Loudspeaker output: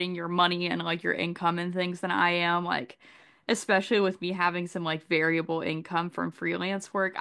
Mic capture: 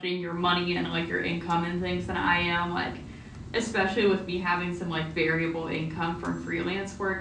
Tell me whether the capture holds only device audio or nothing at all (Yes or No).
Yes